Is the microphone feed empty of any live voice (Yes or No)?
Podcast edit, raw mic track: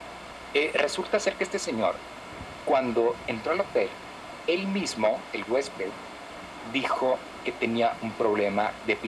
Yes